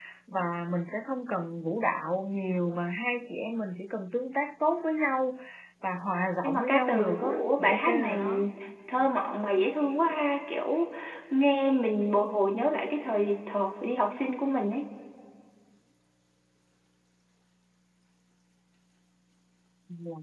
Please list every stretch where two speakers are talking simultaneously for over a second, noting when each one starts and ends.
6.4-8.2

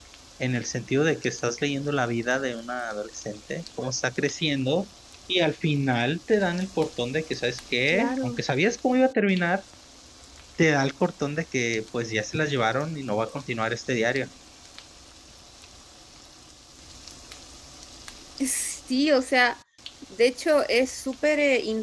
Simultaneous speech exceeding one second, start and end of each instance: none

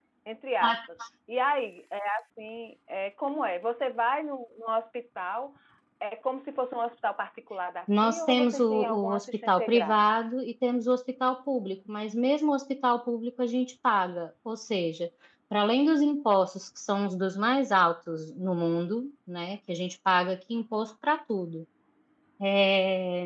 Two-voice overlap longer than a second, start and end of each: 8.0-10.2

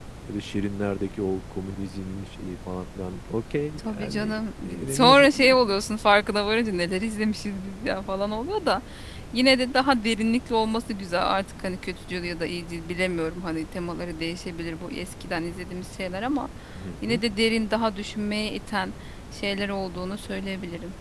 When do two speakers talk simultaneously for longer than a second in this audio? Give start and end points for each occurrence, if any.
3.8-5.6

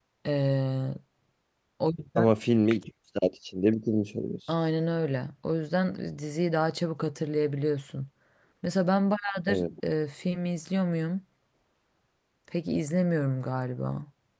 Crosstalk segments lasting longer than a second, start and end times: none

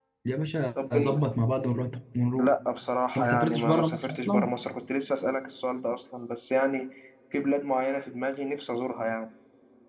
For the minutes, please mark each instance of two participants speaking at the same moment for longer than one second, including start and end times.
3.1-4.5

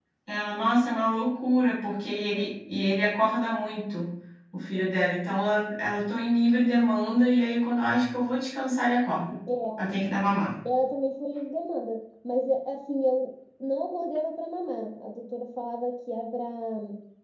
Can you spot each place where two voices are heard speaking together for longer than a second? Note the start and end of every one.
none

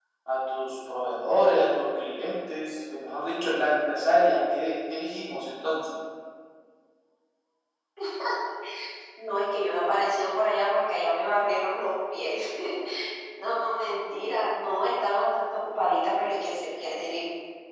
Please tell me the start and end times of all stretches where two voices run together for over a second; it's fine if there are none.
none

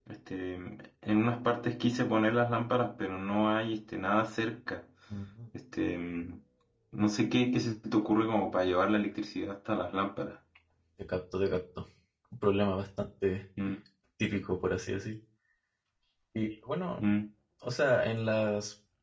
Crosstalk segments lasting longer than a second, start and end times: none

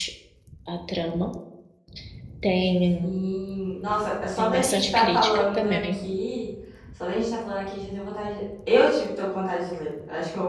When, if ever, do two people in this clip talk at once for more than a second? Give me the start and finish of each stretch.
4.3-6.0

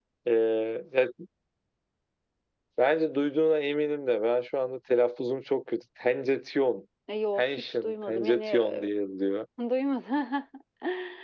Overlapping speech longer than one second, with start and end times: 7.4-8.9

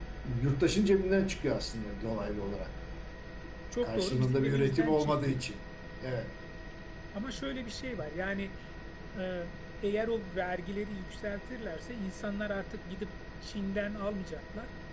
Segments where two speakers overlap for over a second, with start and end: 3.8-5.4

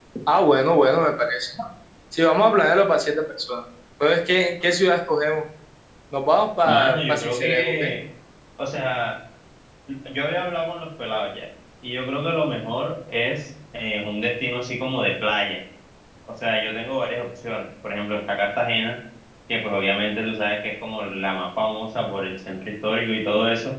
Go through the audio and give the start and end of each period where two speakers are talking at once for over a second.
6.7-7.9

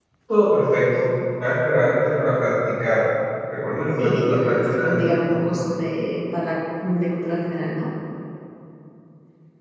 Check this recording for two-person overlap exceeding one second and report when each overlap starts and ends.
4.0-5.2

